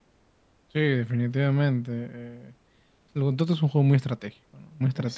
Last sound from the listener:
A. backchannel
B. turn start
A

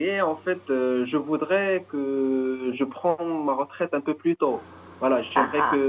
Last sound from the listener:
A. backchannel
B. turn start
A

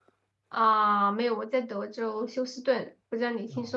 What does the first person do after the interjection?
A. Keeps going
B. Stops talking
B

